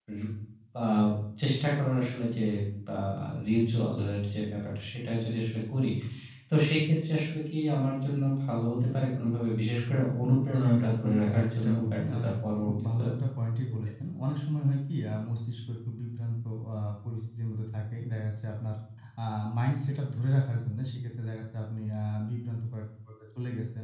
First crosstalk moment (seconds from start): 10.6 s

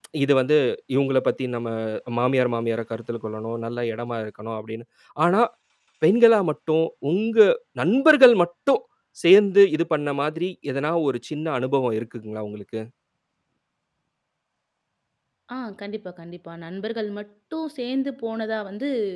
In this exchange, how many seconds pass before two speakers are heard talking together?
none

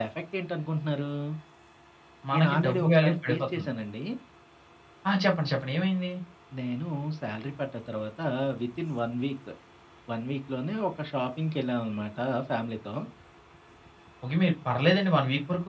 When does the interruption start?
2.3 s

